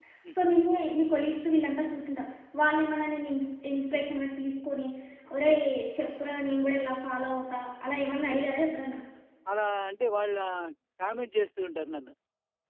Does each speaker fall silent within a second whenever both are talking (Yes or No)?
Yes